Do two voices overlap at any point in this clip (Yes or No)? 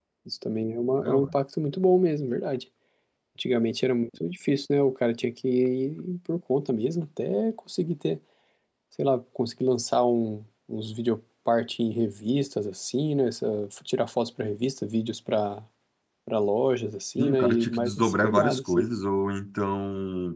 Yes